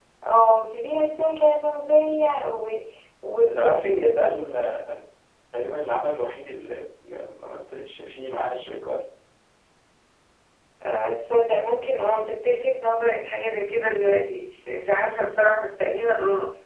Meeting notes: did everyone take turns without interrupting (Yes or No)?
No